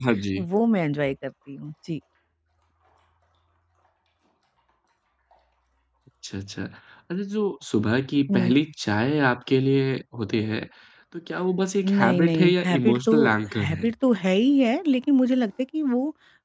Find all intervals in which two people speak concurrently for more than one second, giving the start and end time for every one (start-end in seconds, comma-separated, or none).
11.8-13.1